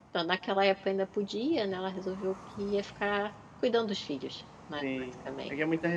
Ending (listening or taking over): taking over